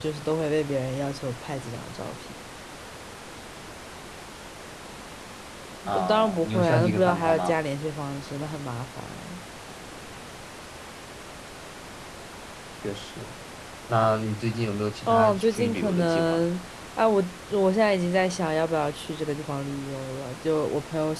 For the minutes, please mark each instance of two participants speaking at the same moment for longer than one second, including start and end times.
5.9-7.5, 15.1-16.4

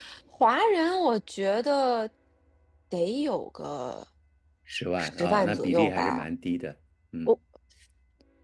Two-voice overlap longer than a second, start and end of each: 5.0-6.2

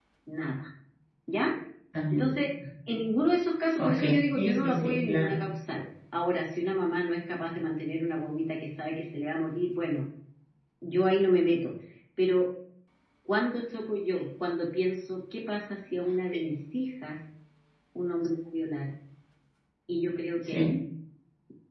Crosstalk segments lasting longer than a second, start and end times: 3.8-5.4

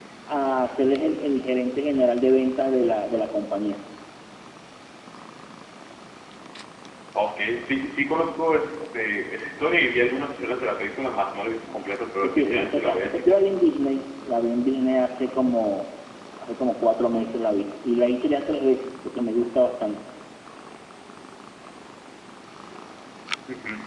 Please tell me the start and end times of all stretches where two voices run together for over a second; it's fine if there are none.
12.2-13.5

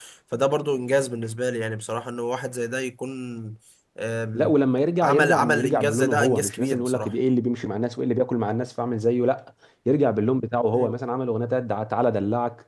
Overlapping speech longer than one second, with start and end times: 5.0-7.1

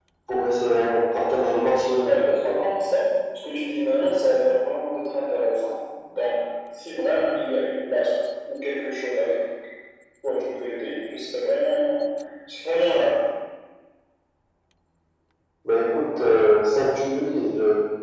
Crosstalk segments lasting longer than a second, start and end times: none

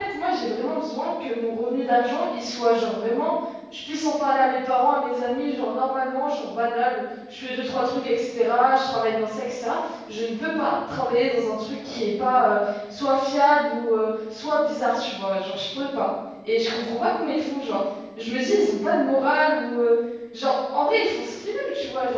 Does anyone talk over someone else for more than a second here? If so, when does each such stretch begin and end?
none

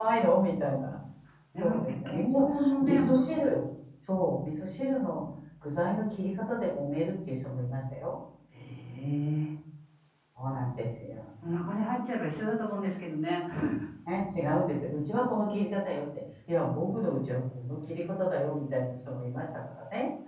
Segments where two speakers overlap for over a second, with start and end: 1.6-3.0

